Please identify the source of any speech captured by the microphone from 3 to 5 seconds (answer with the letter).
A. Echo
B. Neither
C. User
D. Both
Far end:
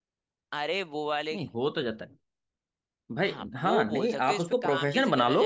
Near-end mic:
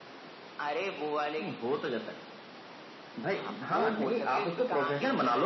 A